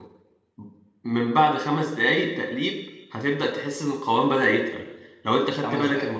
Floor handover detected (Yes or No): No